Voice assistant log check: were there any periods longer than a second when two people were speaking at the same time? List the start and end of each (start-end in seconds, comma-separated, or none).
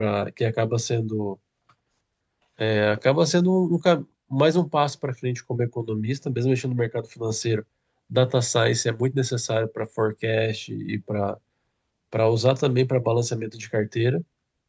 none